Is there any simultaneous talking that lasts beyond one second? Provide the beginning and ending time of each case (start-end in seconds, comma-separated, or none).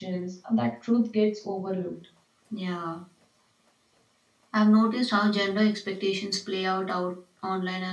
none